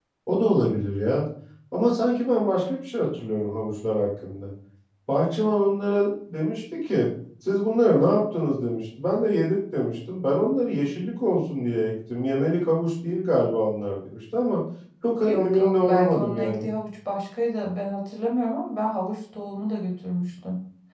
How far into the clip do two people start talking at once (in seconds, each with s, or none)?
15.2 s